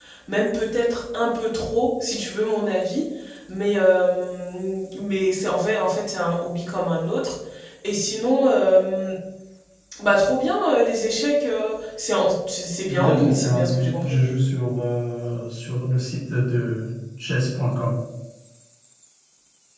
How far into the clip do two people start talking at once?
12.9 s

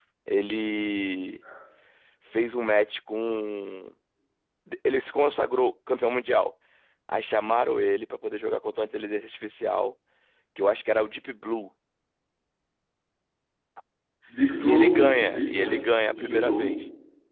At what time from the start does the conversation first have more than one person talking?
14.6 s

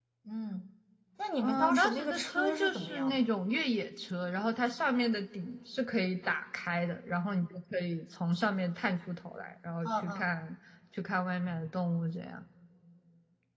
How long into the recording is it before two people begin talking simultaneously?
1.4 s

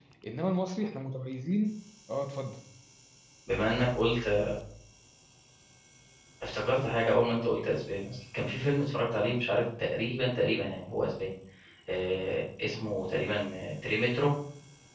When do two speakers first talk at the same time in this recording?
none

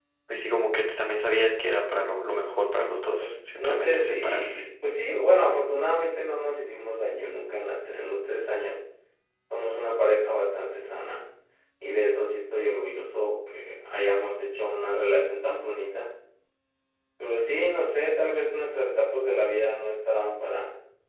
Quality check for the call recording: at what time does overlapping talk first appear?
3.2 s

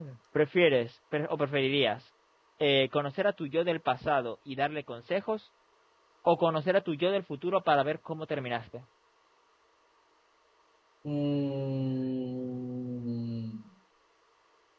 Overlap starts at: none

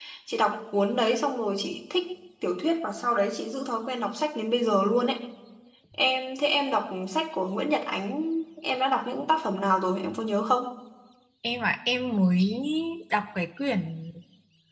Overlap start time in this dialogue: none

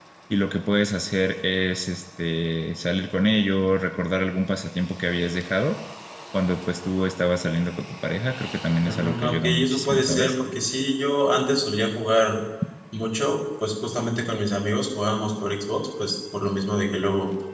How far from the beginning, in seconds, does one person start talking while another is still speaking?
8.8 s

